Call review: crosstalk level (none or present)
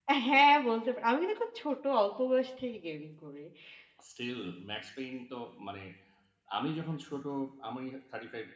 none